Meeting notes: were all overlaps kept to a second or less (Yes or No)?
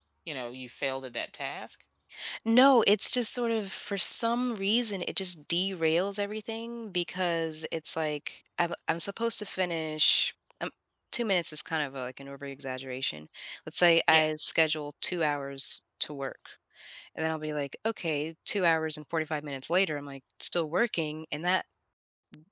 Yes